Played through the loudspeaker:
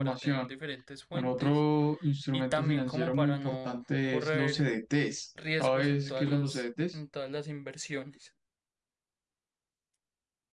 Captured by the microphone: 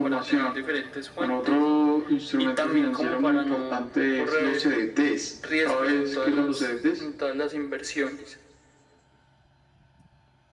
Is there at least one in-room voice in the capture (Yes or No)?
No